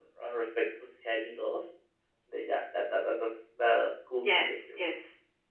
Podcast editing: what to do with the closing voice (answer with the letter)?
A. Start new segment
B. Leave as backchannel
A